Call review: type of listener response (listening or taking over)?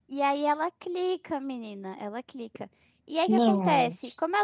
listening